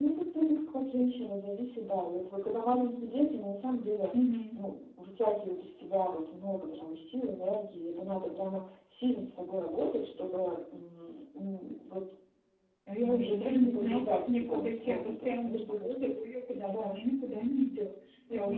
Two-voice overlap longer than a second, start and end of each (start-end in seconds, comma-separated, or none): 13.0-15.9